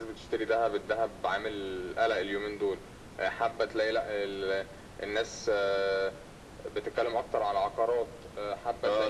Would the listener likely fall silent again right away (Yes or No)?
No